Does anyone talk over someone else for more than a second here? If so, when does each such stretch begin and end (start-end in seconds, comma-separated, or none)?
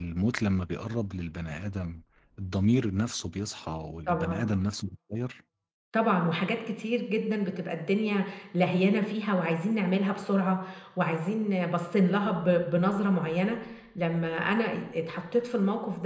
none